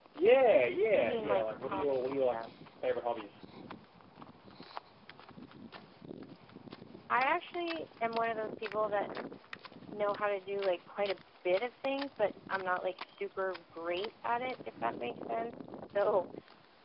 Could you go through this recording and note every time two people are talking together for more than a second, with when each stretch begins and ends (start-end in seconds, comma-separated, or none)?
0.9-2.4